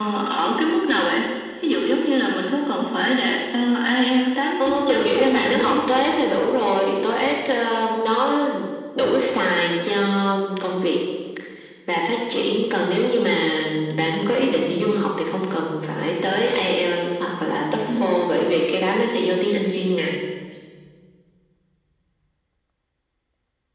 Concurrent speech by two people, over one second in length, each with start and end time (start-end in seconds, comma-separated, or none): 4.6-5.9